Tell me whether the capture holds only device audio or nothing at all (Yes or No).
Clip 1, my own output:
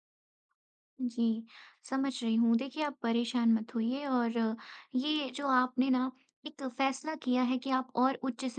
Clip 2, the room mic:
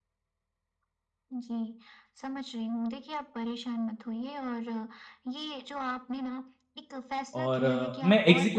No